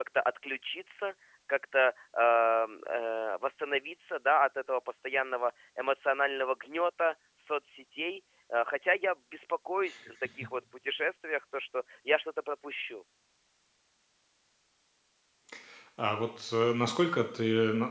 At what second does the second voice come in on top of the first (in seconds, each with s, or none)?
none